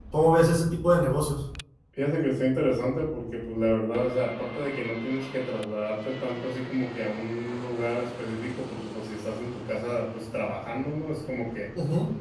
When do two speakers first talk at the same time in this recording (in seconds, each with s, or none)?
none